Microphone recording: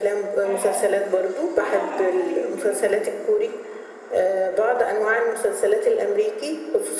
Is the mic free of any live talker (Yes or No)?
No